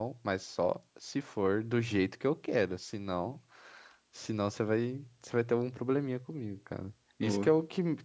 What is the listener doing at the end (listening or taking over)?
listening